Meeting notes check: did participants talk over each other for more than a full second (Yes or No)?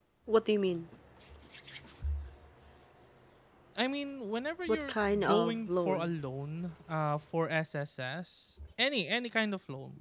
Yes